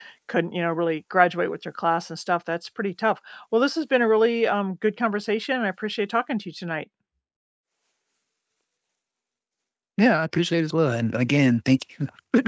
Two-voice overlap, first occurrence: none

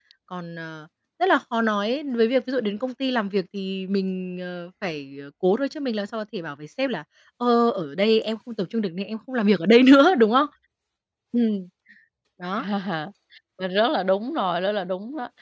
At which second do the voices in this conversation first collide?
none

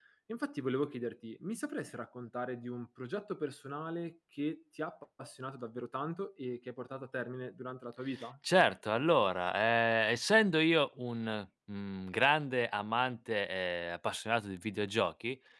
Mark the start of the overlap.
none

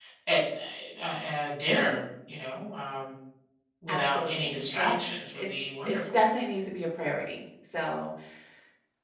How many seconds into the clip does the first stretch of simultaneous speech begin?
3.9 s

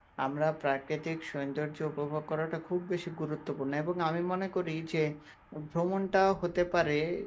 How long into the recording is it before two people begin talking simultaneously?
none

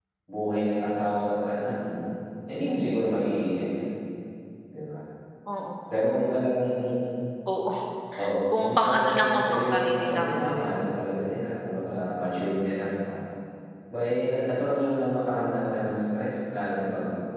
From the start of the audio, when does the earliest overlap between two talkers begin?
8.5 s

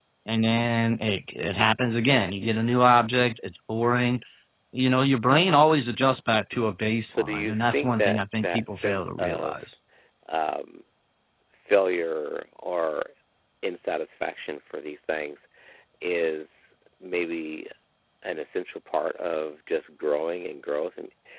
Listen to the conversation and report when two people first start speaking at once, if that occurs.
7.1 s

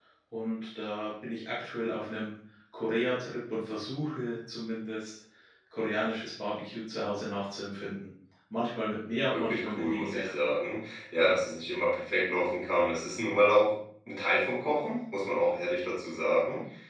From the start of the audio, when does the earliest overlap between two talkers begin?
9.3 s

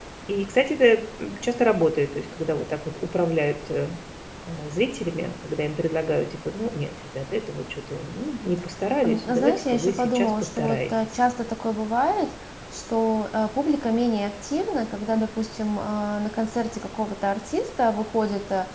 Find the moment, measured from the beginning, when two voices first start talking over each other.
9.0 s

